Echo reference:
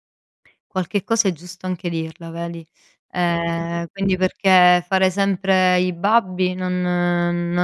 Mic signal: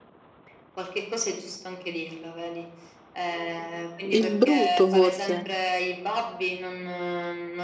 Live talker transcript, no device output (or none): Il brutto, forse.